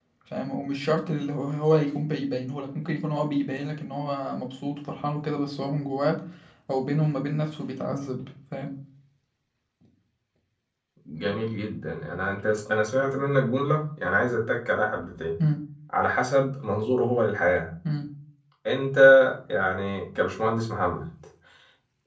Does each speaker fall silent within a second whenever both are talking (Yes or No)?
Yes